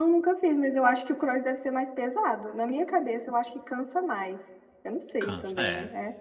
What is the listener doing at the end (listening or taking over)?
taking over